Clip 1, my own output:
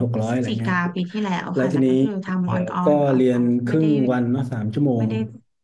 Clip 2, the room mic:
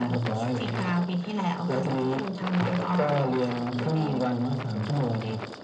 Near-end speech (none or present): none